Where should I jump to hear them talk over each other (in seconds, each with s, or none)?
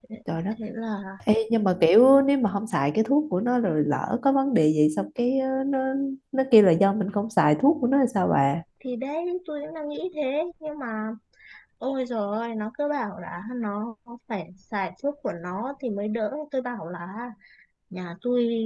none